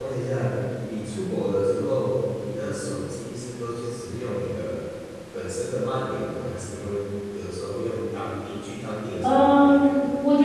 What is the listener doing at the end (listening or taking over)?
taking over